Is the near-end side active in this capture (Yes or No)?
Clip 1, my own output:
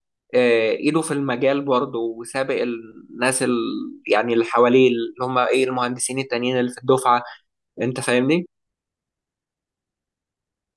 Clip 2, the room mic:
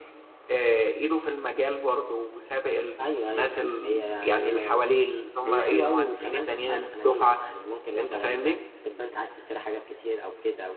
Yes